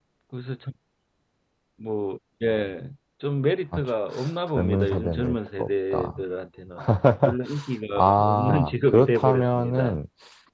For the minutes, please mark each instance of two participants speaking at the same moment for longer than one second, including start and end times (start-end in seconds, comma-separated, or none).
4.6-6.2, 8.0-10.0